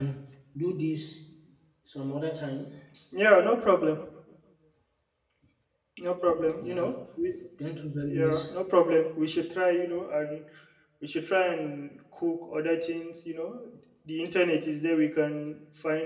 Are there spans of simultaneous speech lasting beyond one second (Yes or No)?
No